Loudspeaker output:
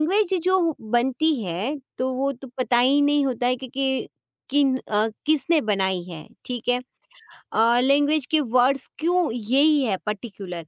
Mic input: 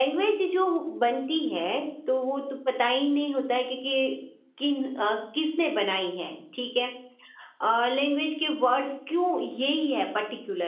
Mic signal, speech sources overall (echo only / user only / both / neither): echo only